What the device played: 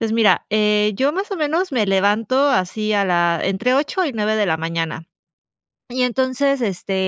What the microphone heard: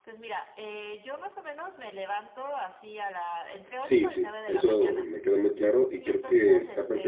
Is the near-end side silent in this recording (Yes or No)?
No